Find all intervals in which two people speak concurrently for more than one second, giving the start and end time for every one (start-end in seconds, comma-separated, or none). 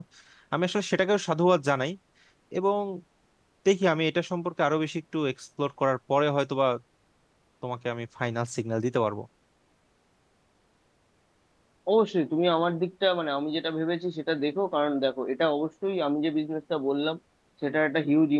none